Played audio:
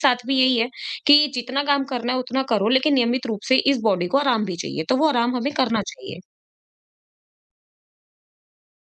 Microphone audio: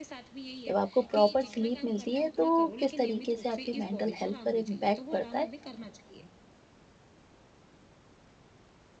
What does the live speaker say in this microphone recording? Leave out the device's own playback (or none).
जब आपको प्रॉपर स्लीप मिलती है तो किस तरीके से आपकी मेंटल हेल्थ पर इम्पैक्ट पड़ता है?